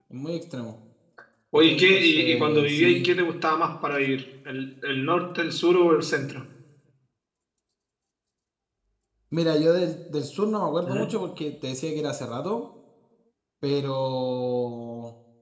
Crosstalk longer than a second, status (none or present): present